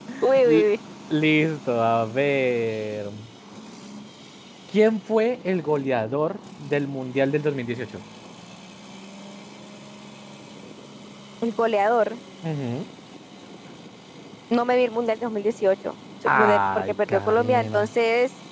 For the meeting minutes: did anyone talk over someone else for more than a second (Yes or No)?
Yes